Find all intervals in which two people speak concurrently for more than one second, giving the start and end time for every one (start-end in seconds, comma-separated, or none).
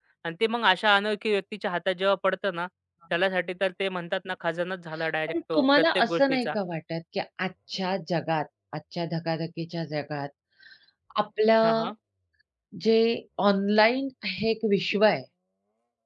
5.3-6.5